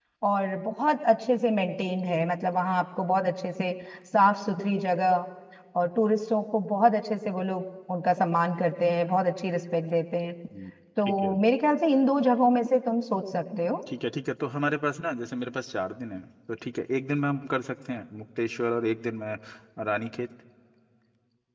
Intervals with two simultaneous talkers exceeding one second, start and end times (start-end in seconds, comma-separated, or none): none